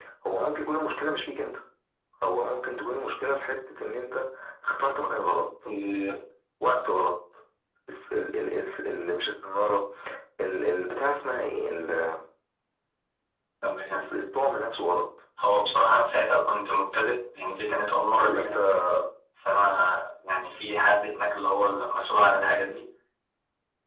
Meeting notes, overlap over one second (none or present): none